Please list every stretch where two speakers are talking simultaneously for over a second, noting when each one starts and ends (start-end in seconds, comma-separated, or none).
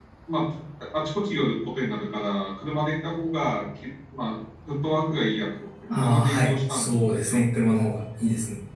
5.9-7.4